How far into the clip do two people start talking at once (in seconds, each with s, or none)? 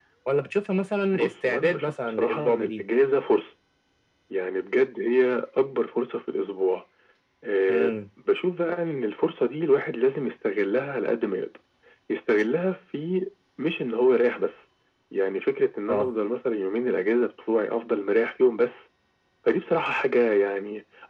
1.1 s